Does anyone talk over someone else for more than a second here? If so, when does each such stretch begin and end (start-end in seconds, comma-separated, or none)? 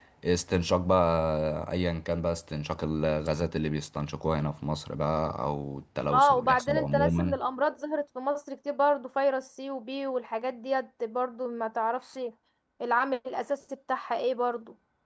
6.1-7.4